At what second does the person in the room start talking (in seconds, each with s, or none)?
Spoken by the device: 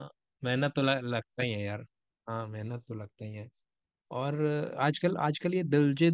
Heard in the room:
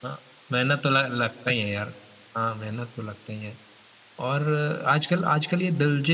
none